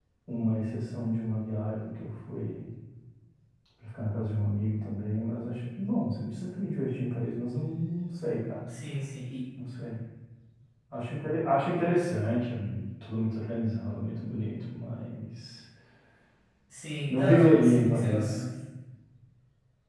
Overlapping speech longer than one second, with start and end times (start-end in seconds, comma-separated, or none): 17.1-18.4